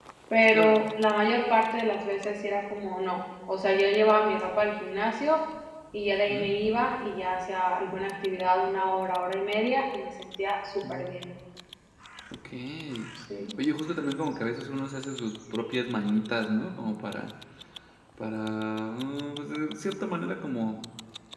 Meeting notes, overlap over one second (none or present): none